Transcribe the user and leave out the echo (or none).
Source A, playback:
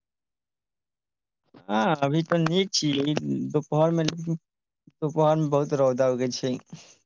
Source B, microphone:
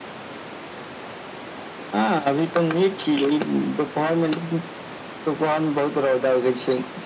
none